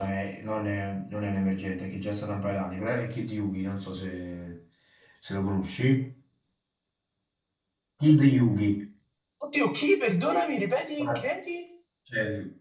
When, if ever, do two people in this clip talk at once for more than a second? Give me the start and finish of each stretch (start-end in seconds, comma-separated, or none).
none